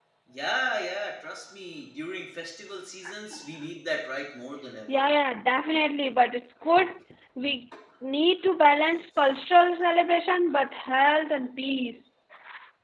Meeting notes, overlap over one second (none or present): none